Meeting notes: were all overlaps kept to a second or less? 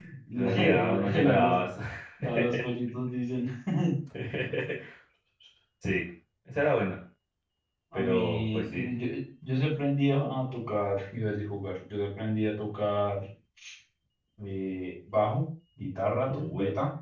No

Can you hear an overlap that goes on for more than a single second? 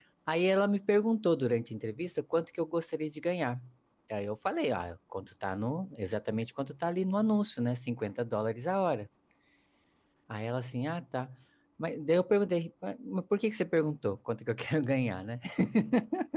No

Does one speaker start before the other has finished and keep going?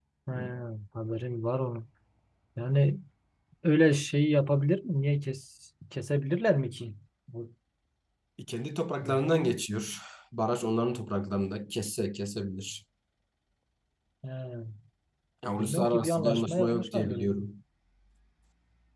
Yes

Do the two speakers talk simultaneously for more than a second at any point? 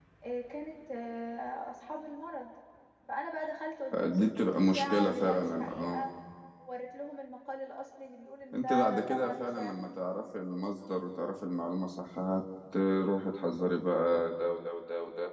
Yes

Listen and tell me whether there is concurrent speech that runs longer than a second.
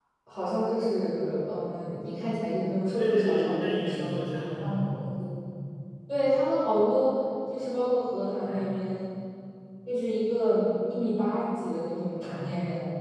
Yes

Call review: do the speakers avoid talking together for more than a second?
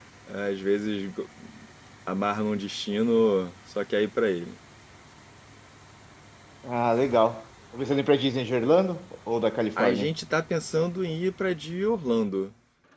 Yes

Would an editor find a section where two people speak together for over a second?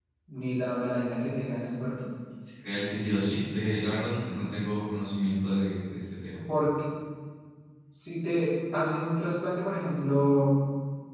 No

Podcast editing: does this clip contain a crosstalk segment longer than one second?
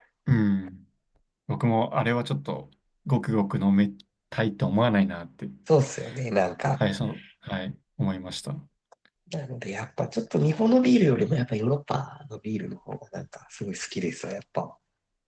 No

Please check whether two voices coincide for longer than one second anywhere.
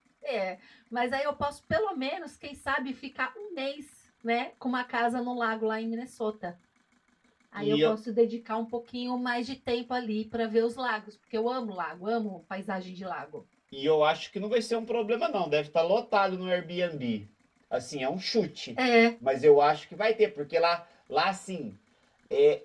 No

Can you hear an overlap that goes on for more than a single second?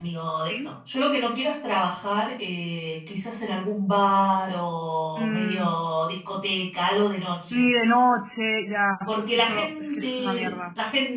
Yes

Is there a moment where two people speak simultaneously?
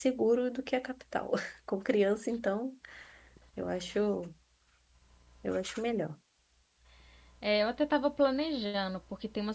No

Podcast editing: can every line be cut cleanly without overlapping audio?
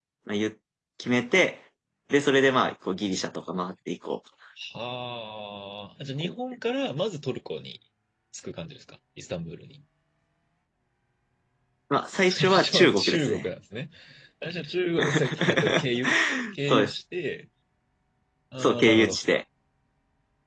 No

